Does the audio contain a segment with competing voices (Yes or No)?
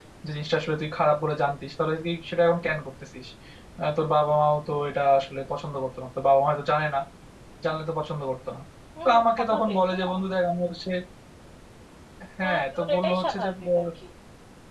Yes